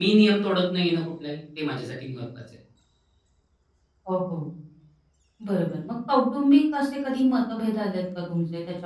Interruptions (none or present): none